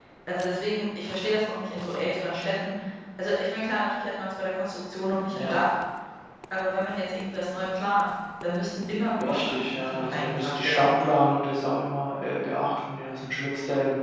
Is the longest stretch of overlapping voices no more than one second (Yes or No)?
No